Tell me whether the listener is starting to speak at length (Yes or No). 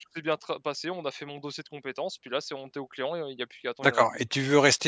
Yes